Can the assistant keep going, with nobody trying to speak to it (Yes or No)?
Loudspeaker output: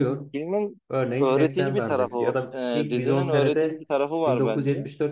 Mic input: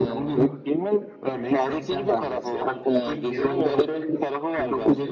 Yes